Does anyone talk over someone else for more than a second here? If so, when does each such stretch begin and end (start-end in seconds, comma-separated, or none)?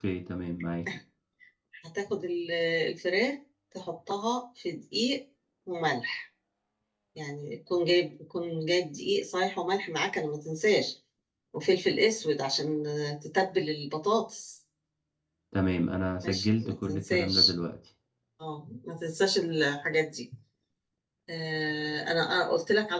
16.2-17.5